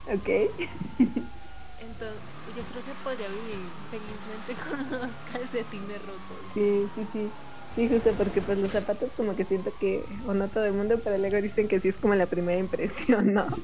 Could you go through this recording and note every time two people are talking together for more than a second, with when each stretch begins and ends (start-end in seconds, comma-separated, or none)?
none